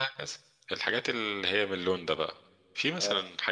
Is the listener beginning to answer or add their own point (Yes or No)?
No